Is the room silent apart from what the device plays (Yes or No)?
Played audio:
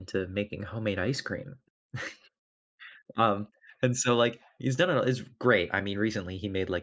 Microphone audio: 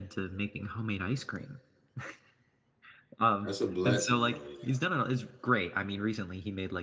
No